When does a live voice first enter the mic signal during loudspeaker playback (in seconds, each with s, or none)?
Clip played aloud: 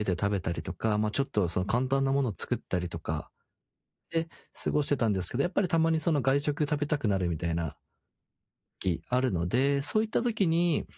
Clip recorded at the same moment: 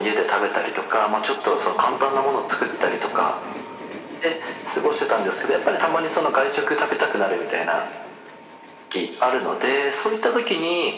none